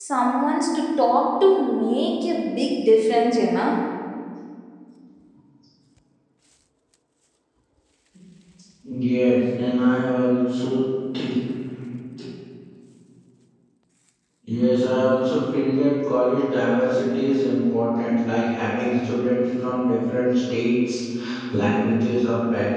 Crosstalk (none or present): none